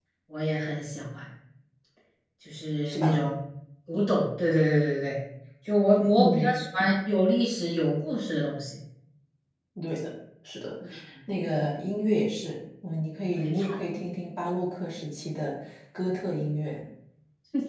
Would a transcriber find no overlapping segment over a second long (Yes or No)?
Yes